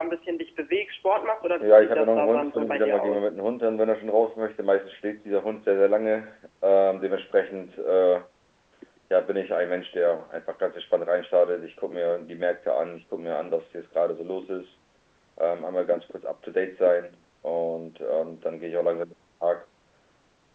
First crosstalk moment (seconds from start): 1.6 s

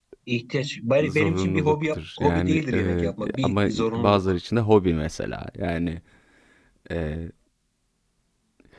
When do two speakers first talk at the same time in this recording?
1.0 s

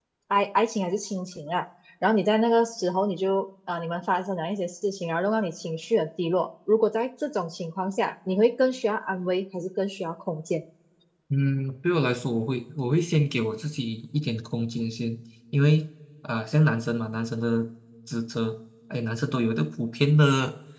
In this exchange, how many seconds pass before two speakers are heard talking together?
none

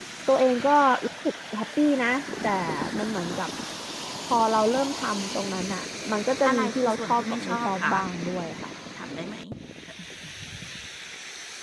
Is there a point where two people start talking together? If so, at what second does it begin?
6.4 s

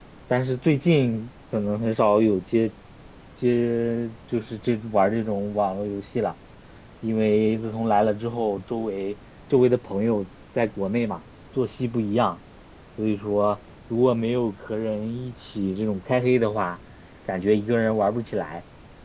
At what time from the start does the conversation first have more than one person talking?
none

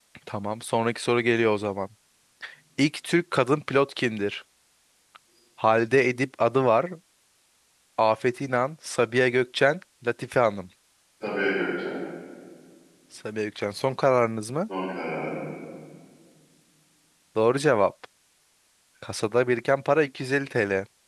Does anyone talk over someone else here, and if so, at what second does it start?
none

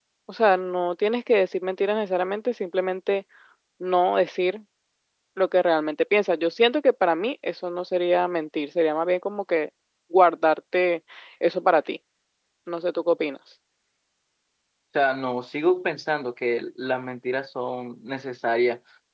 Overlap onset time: none

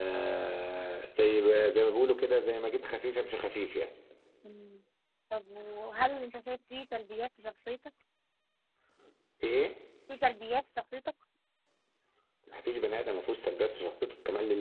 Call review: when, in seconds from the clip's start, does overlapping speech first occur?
none

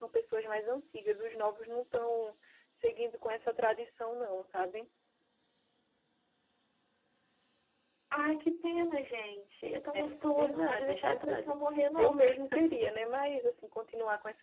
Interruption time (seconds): 9.9 s

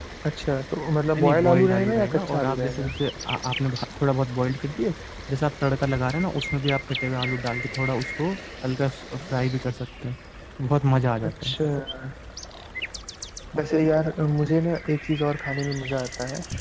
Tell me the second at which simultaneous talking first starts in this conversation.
1.2 s

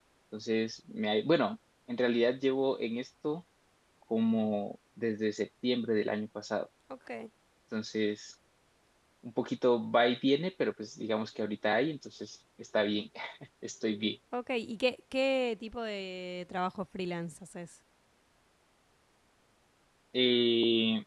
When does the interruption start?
none

